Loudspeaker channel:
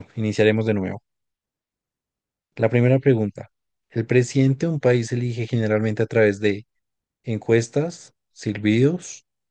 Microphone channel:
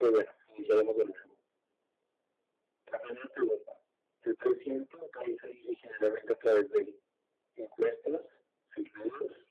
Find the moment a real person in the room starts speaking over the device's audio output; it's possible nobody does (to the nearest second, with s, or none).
none